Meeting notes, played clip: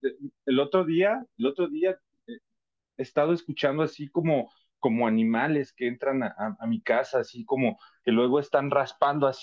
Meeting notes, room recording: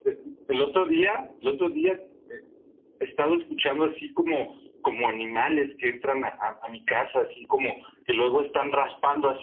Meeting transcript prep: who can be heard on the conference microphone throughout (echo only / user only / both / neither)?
echo only